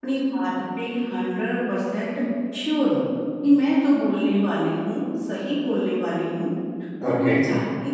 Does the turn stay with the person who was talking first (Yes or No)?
Yes